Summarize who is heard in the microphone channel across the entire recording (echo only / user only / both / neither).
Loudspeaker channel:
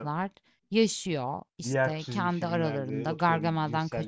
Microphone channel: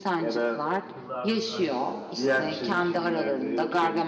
both